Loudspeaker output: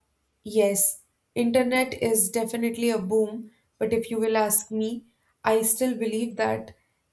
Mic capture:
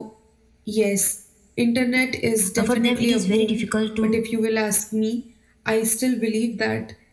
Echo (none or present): present